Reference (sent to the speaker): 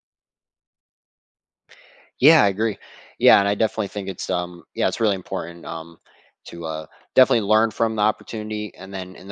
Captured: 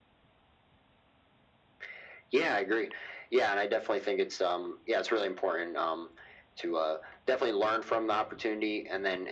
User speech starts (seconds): none

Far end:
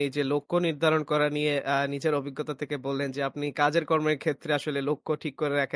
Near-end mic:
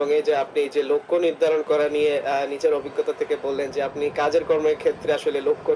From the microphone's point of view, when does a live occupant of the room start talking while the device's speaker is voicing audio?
none

